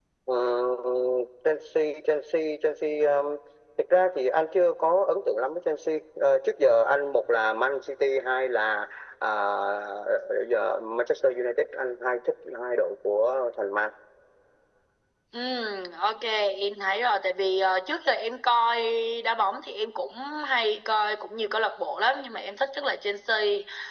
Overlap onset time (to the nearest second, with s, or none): none